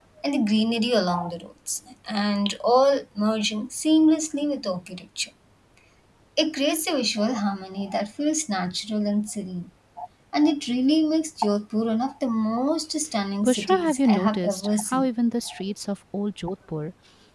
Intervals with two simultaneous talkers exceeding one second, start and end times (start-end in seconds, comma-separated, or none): 13.4-15.1